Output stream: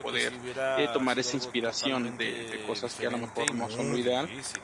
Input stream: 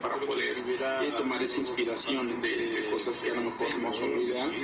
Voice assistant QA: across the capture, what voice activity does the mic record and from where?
echo only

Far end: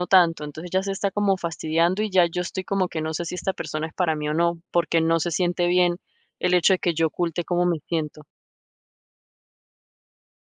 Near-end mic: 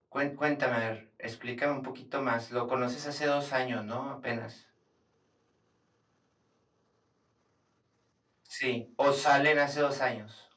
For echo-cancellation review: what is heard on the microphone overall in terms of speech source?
user only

